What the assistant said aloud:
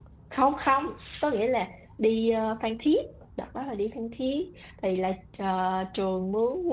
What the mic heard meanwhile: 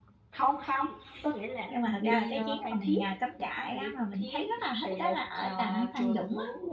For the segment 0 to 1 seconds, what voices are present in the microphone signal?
echo only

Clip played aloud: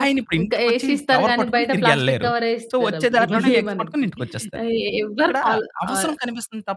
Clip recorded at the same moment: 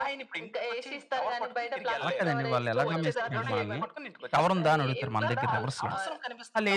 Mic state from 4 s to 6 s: both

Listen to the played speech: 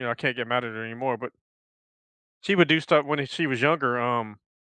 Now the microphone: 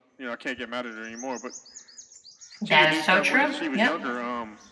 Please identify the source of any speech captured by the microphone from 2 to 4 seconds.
both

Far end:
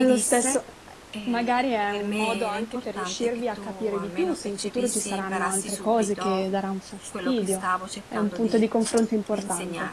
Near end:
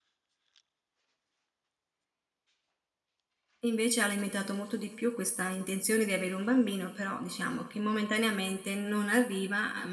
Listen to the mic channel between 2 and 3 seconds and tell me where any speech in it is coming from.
neither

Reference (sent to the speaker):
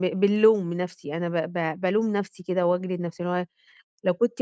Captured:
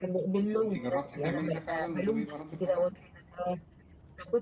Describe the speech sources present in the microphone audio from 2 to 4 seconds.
both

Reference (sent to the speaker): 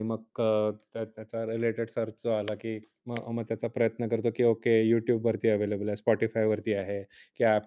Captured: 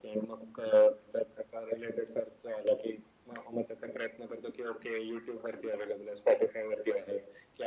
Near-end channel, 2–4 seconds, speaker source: echo only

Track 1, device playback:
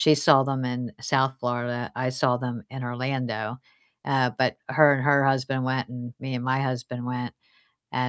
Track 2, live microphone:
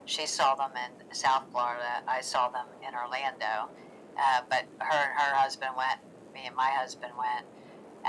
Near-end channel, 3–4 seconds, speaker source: echo only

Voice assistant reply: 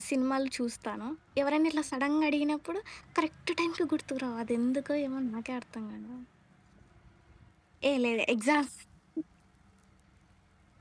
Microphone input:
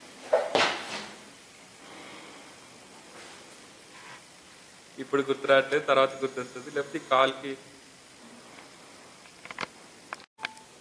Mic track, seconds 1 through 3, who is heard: neither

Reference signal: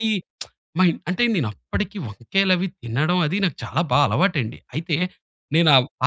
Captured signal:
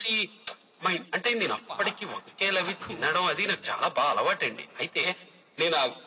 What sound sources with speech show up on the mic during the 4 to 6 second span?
echo only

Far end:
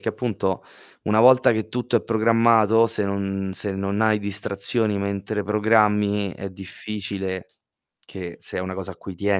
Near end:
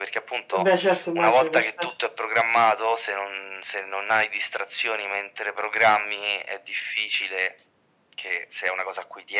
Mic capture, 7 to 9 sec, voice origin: echo only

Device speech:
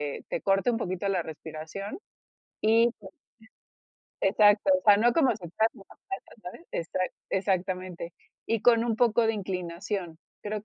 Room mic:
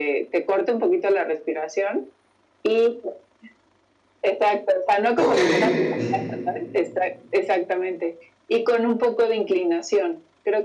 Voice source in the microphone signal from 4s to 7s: both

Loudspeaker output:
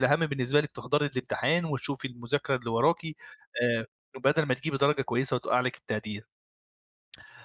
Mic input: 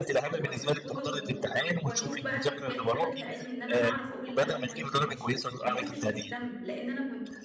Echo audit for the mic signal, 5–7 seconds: both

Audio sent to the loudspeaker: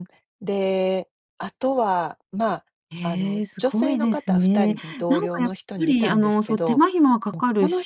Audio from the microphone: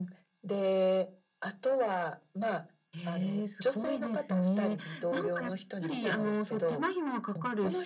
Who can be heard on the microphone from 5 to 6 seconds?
echo only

